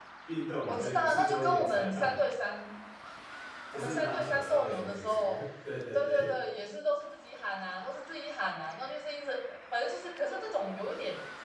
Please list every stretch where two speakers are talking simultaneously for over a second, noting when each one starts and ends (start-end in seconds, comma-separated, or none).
0.7-2.2, 3.7-5.5